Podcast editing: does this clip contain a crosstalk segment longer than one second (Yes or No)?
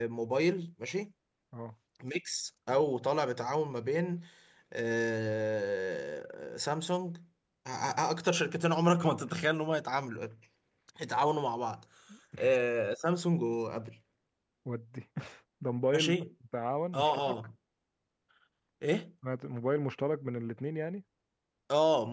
No